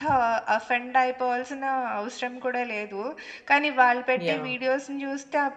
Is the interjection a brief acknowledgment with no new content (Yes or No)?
Yes